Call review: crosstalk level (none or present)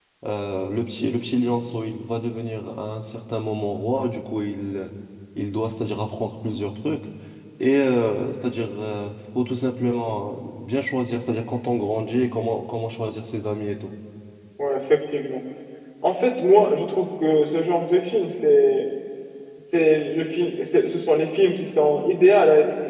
none